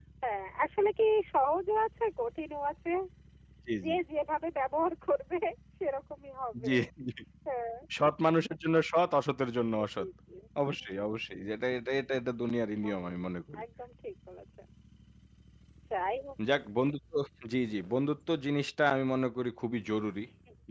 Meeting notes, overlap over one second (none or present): none